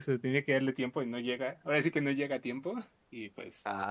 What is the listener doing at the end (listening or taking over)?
taking over